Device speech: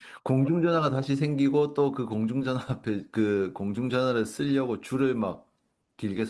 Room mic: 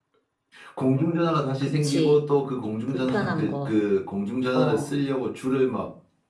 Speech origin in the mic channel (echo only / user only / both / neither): both